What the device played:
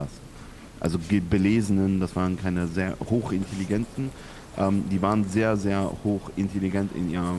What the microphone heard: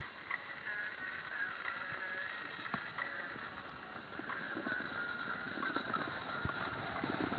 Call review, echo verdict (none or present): none